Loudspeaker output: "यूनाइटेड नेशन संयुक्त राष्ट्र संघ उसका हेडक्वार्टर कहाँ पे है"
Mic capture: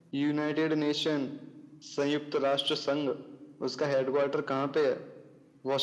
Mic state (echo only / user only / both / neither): echo only